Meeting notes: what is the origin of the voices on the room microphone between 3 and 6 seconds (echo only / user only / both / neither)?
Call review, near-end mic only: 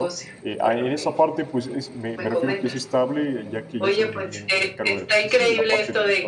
both